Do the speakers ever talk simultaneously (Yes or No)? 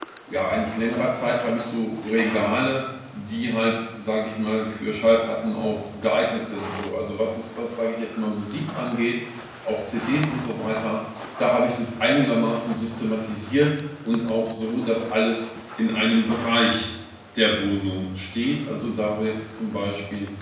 No